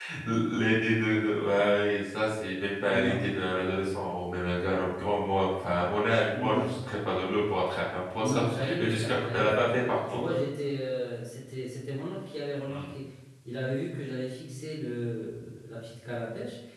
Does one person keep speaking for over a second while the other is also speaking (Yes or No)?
Yes